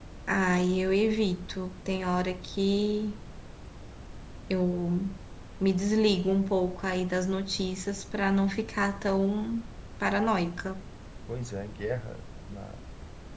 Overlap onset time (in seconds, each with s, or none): none